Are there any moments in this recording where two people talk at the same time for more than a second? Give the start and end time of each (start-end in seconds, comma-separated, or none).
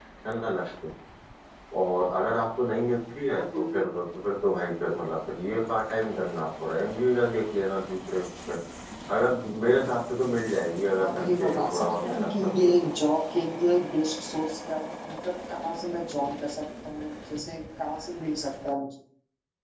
11.0-12.7